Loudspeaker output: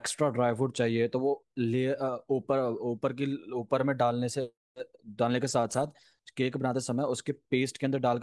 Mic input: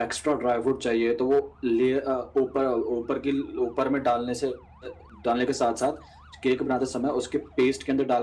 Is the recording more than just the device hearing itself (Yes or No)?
No